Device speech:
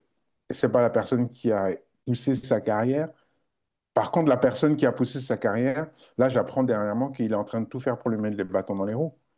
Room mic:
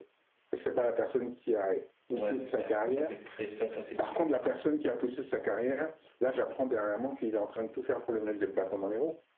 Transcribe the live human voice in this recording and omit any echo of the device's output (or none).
Ouais, ouais, ça c'est très ça, ça c'est sûr.